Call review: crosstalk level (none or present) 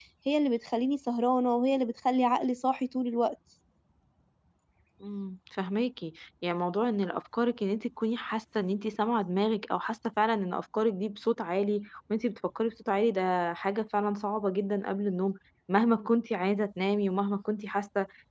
none